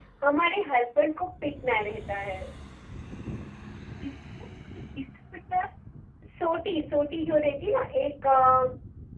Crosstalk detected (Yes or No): No